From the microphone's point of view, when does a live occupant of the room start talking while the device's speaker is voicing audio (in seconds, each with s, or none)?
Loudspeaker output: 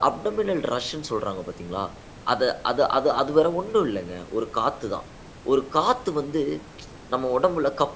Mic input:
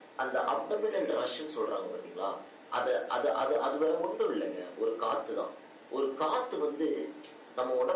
none